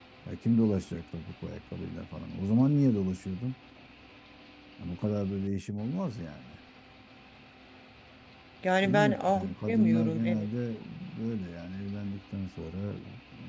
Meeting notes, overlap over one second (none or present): present